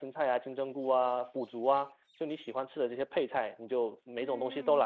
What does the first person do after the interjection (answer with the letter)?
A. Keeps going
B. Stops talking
B